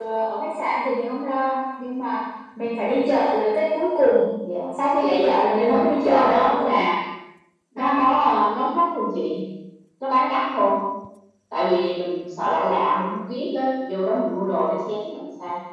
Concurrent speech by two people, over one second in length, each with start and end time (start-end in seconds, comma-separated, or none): 5.6-6.8